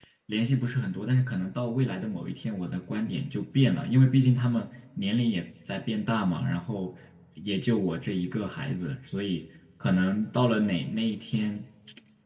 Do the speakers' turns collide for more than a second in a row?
No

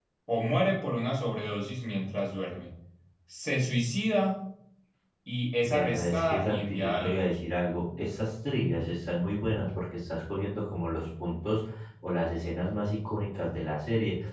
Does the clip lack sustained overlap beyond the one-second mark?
No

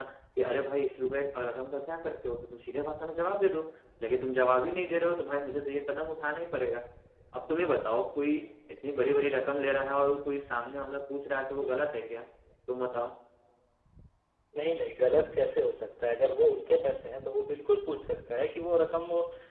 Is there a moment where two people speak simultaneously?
No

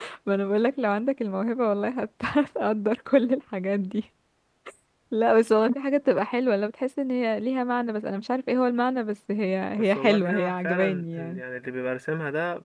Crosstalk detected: Yes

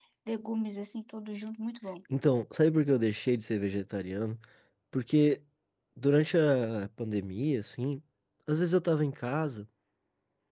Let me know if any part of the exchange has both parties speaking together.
No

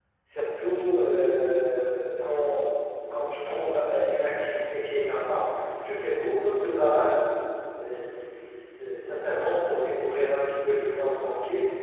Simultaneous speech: No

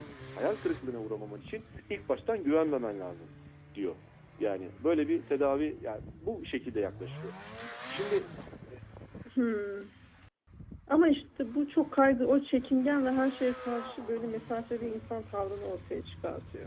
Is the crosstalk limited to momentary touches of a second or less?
Yes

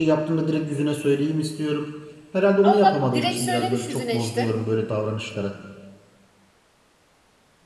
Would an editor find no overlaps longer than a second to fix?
No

